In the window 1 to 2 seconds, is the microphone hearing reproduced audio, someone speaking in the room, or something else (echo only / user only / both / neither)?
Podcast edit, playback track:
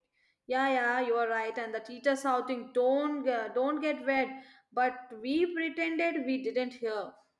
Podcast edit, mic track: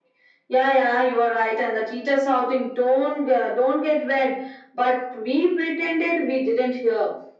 echo only